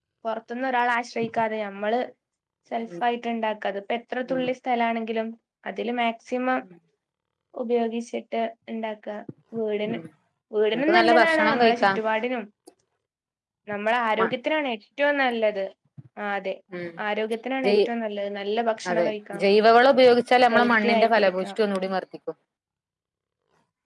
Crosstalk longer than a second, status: present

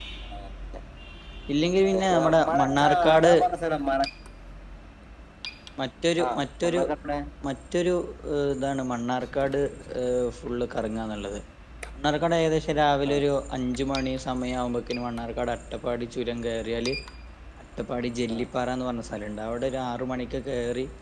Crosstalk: present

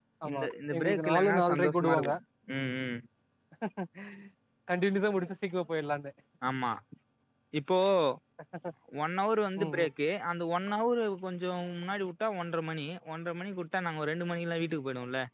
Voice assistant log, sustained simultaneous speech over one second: present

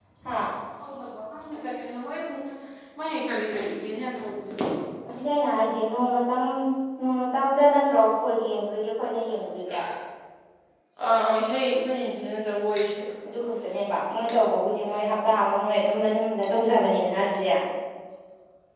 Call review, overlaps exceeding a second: none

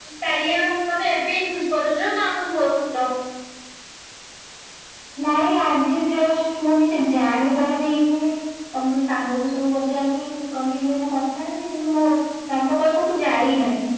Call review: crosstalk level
none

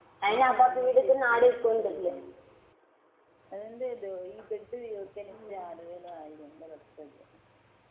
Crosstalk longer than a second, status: present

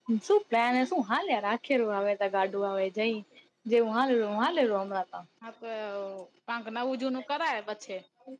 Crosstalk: none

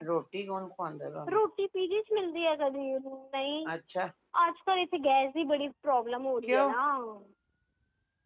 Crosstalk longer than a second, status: none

